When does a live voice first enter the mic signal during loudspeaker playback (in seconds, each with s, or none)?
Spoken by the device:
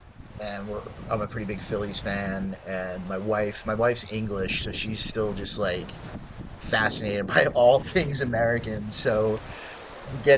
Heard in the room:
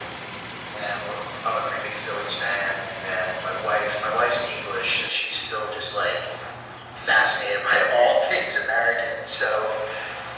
none